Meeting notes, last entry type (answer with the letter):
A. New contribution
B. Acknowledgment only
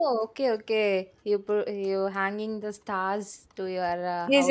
A